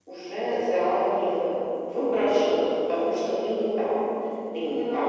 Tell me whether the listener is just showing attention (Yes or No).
Yes